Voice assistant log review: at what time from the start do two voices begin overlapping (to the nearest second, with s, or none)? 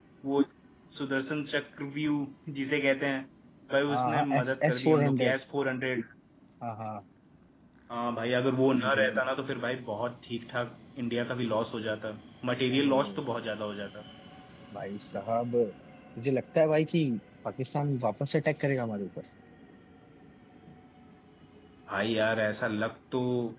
4 s